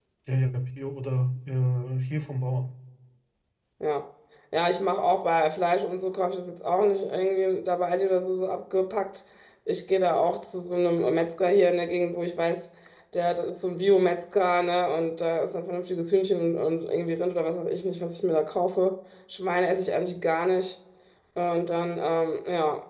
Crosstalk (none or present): none